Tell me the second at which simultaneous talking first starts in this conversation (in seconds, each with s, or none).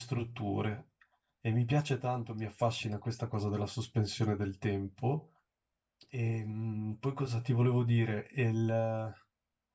none